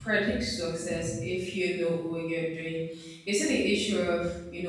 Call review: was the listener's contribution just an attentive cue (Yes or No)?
Yes